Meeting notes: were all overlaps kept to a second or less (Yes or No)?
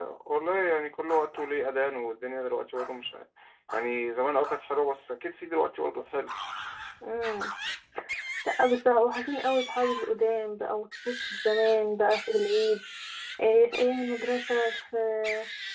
Yes